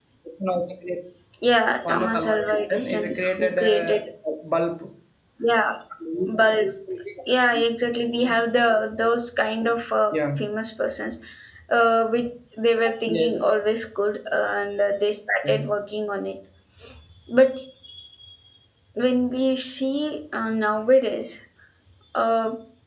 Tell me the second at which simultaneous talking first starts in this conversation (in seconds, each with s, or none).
1.9 s